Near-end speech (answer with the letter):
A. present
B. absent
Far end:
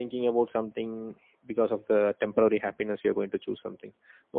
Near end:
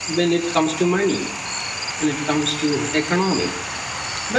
A